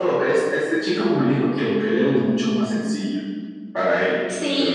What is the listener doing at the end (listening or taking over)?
taking over